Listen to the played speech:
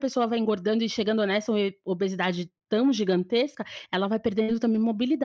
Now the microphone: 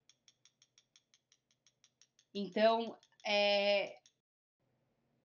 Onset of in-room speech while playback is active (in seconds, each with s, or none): 2.3 s